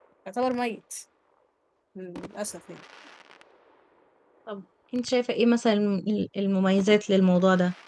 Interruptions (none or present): none